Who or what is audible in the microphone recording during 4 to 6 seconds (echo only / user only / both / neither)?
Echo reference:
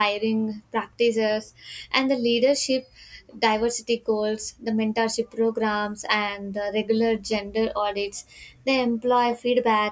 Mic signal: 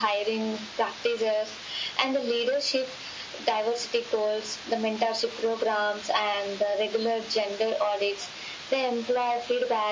echo only